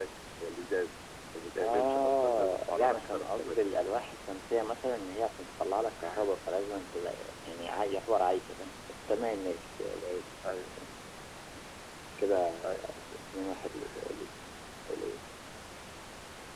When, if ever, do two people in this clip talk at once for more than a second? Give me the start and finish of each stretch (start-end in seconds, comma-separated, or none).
1.6-3.6